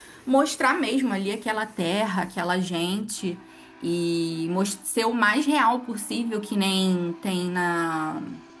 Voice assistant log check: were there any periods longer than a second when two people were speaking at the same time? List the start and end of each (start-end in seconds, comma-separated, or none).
none